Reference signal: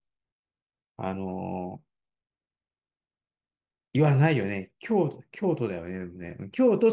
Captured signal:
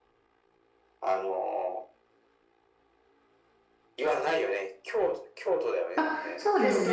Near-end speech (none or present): present